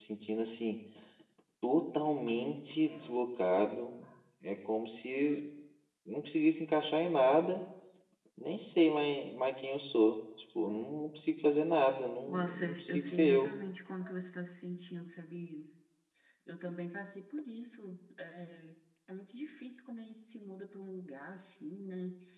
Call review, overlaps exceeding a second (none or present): present